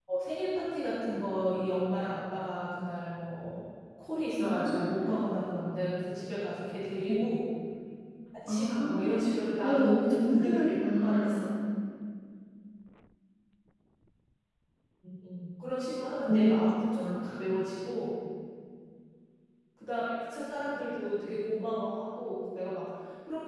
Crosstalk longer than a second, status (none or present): present